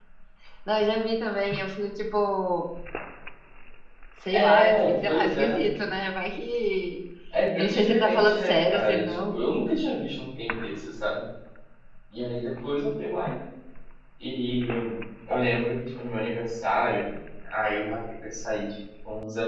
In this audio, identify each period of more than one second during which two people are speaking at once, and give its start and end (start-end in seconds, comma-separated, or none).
4.3-5.6, 7.6-9.3